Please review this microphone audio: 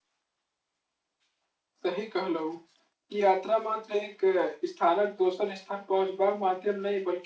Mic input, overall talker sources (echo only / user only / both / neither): user only